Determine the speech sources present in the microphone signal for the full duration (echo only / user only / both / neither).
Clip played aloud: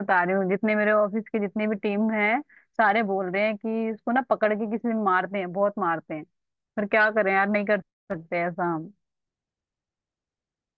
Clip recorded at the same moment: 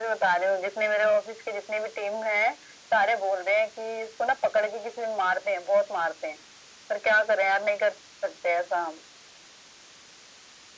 echo only